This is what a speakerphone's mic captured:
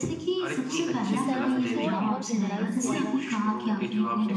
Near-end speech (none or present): present